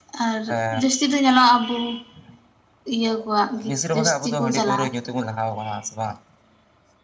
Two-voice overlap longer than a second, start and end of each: 3.7-4.9

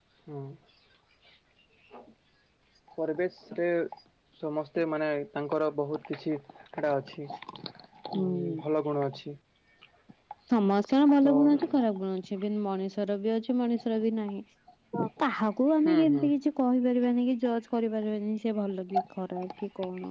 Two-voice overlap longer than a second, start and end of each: none

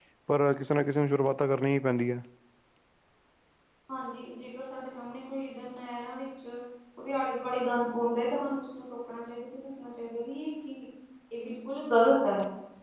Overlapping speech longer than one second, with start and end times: none

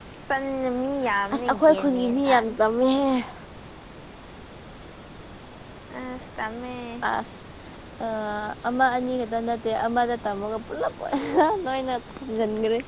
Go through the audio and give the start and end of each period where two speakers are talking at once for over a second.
1.3-2.5

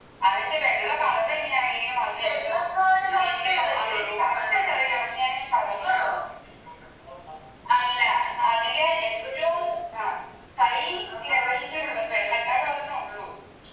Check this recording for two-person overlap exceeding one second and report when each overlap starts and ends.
3.2-4.6

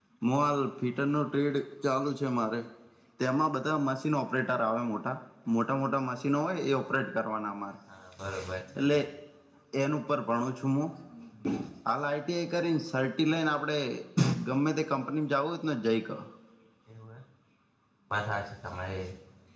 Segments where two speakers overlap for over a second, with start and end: none

